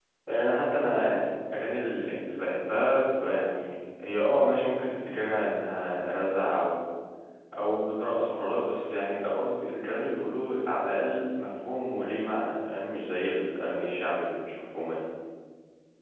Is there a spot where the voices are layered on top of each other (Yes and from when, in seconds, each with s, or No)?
No